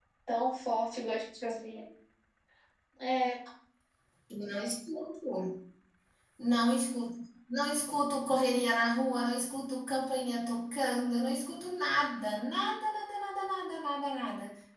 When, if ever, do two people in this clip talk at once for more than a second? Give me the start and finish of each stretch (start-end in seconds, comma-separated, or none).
none